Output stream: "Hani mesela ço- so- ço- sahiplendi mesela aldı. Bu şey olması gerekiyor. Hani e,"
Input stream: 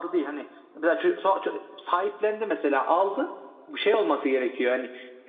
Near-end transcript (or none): none